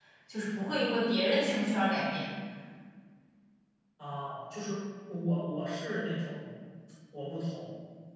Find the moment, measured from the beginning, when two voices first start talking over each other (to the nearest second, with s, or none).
none